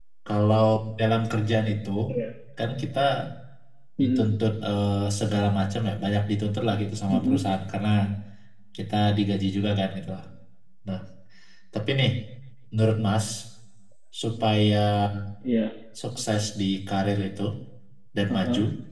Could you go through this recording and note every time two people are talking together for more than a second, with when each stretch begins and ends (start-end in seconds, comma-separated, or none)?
none